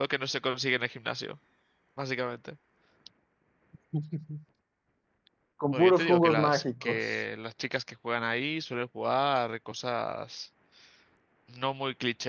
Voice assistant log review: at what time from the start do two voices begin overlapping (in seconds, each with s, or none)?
5.7 s